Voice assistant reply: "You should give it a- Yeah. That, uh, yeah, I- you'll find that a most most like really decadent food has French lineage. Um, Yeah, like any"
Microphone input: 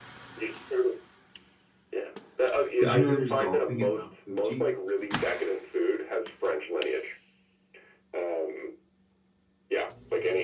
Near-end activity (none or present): present